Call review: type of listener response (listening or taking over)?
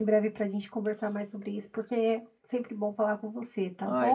taking over